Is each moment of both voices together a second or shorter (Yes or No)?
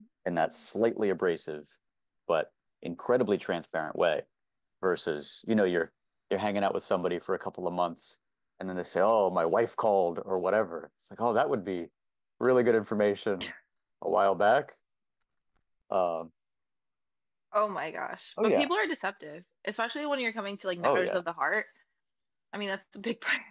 Yes